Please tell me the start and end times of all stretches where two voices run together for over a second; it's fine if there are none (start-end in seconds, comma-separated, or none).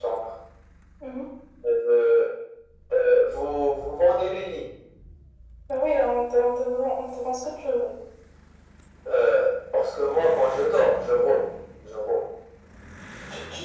none